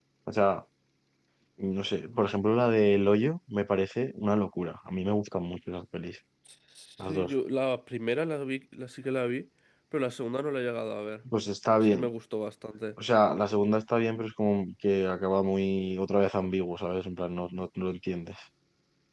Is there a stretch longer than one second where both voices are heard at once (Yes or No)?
No